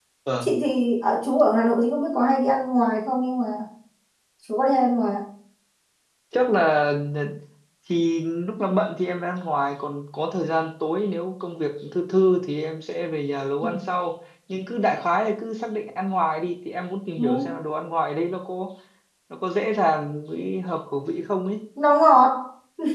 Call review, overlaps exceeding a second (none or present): none